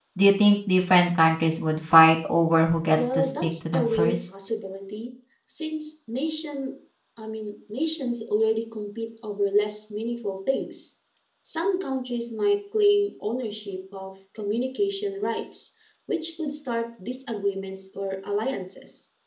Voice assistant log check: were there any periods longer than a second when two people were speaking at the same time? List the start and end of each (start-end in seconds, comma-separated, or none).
2.9-4.2